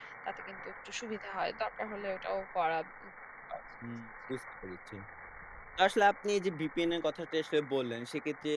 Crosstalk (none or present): none